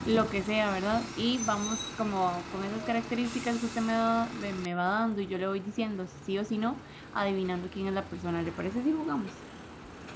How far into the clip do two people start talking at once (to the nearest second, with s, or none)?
none